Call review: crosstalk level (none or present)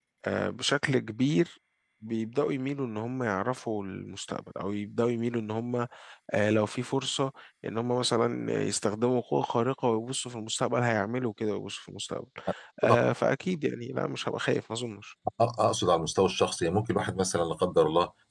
none